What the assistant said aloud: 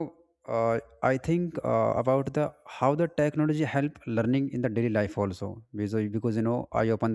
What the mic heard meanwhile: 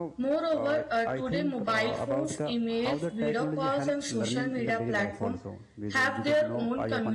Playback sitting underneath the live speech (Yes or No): Yes